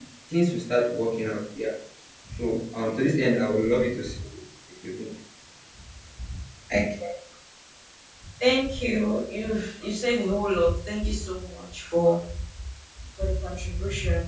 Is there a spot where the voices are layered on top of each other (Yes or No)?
No